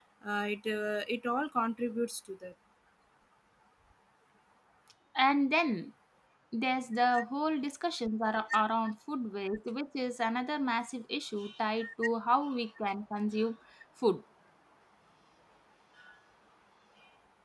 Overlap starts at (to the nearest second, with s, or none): none